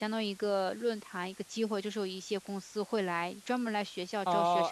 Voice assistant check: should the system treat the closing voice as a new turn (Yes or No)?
Yes